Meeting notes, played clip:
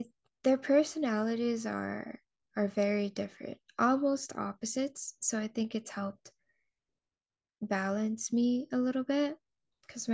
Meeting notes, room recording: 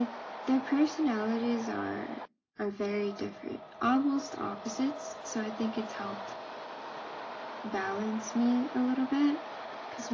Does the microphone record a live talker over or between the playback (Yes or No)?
No